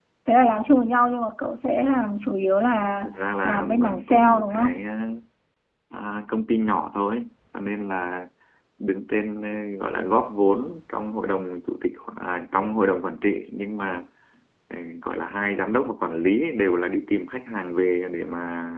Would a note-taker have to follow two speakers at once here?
Yes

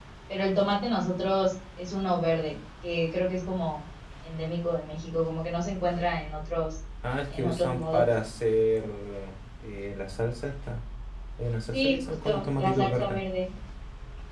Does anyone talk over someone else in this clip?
Yes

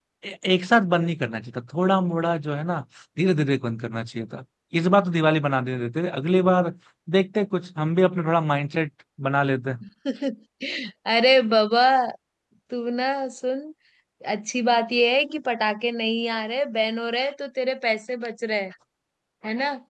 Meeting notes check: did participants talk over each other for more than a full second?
No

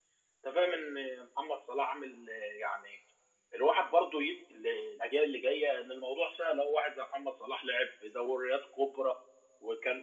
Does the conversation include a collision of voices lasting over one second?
No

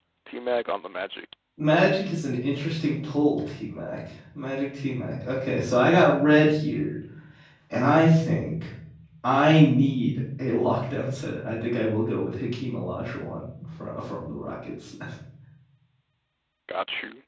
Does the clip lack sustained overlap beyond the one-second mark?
Yes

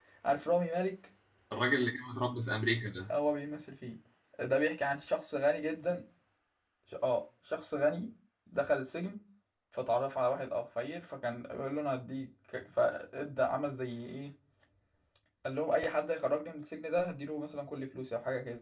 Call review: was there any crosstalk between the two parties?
No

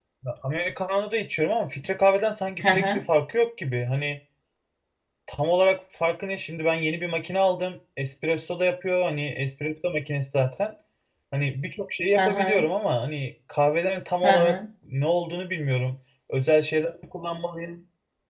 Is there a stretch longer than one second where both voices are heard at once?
No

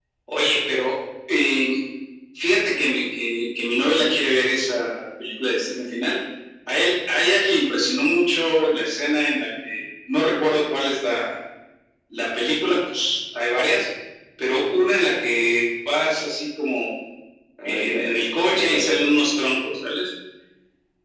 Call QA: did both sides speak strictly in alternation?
No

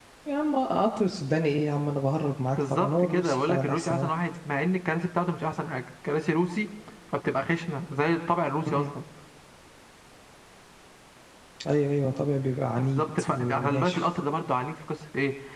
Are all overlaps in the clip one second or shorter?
No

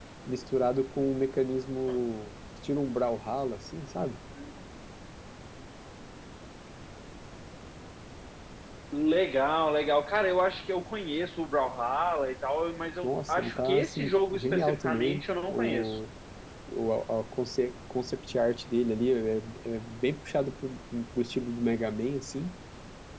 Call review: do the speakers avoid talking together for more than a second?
No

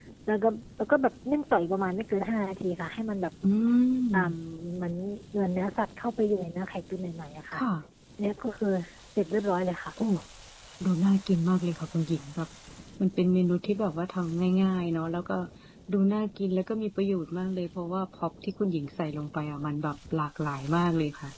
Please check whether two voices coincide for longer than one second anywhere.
No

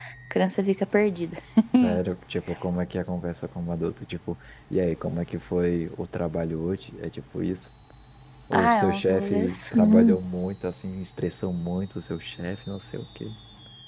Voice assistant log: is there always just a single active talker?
No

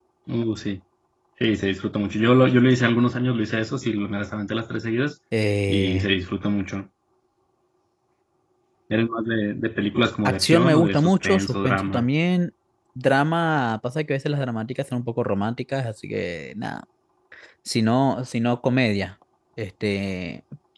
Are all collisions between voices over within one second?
No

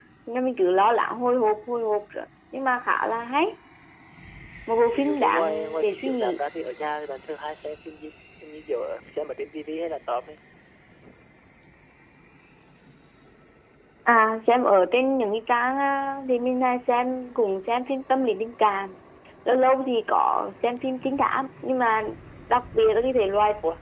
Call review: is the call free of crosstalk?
No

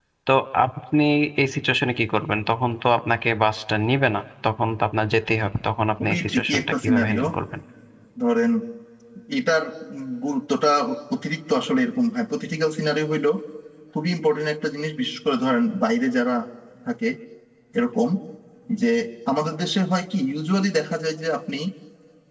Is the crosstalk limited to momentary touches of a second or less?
No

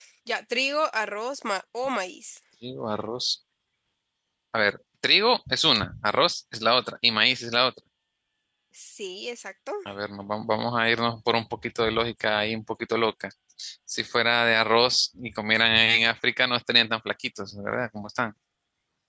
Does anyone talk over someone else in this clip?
No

